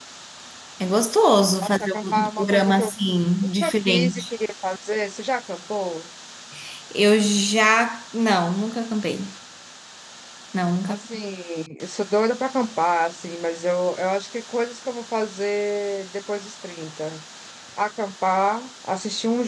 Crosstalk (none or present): present